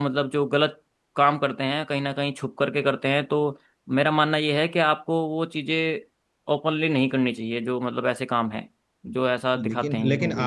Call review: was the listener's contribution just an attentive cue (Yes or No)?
No